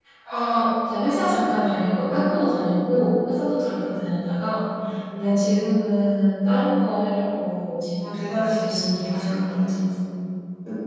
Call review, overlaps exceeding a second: present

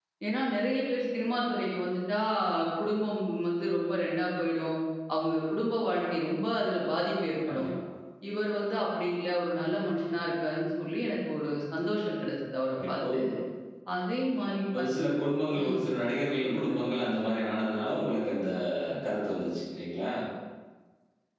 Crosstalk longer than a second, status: none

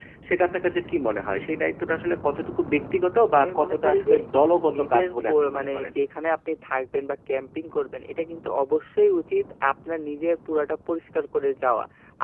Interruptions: present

